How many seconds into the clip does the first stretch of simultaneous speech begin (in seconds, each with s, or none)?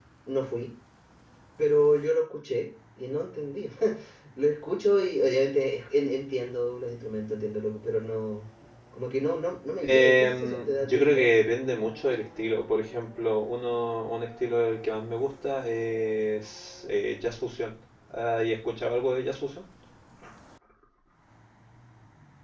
9.8 s